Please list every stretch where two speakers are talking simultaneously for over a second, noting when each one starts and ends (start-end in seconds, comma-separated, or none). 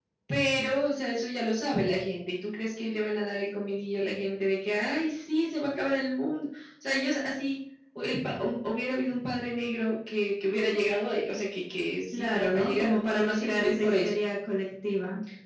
12.1-14.1